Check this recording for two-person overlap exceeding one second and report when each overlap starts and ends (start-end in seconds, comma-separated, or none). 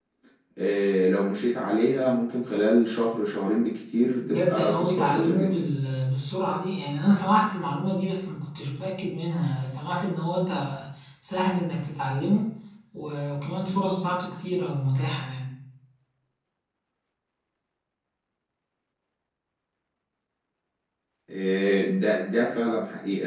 4.3-5.6